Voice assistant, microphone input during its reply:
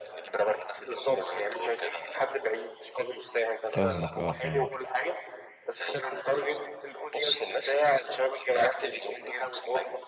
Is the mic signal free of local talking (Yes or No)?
No